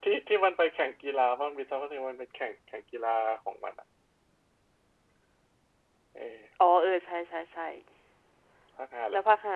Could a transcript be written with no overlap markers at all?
Yes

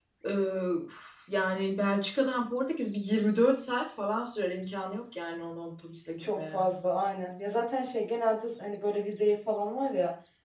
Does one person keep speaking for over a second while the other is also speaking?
No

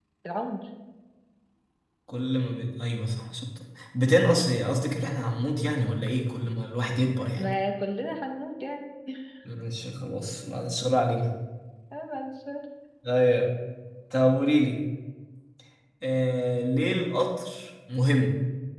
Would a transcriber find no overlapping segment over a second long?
Yes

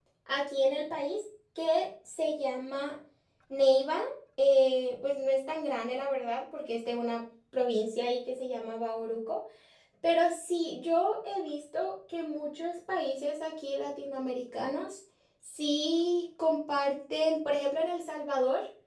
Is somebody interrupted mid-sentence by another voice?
No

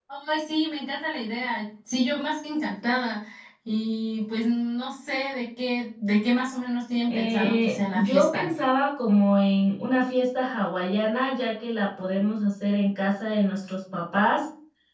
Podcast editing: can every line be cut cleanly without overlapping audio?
No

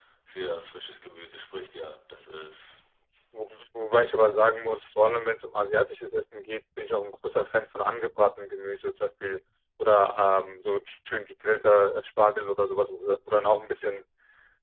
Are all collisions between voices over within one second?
Yes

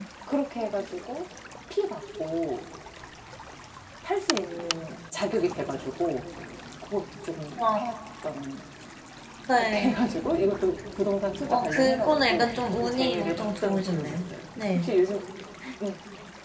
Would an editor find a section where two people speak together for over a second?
Yes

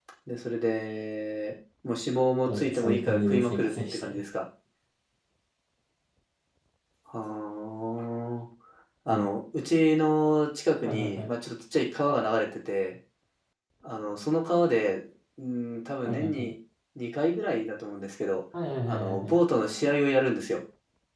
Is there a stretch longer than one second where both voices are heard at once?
Yes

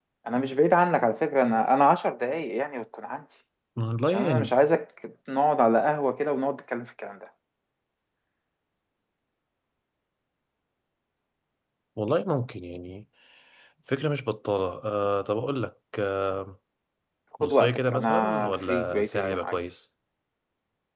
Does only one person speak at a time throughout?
No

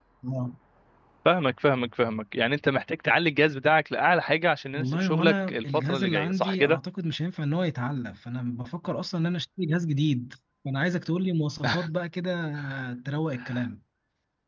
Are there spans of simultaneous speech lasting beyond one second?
Yes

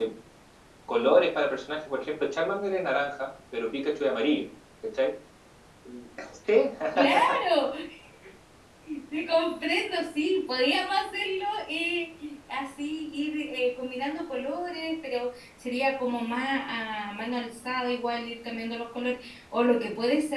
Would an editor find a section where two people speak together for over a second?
No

